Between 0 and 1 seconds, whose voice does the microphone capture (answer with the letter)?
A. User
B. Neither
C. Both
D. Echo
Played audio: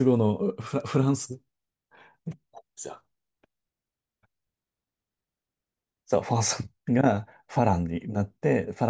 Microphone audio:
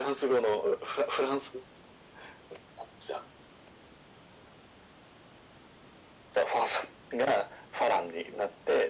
D